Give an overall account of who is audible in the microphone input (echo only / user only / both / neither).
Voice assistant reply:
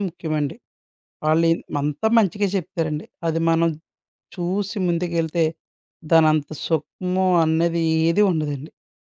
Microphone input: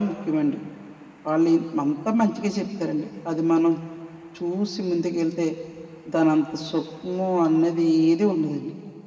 echo only